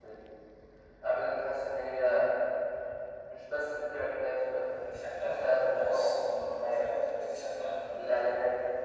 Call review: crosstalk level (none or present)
present